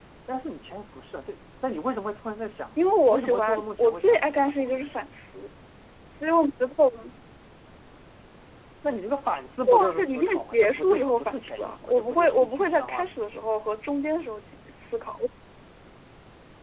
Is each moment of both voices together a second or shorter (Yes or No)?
No